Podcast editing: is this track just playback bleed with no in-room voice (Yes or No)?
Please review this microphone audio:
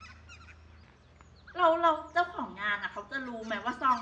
No